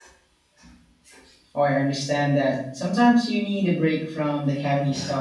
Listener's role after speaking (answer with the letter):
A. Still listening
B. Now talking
B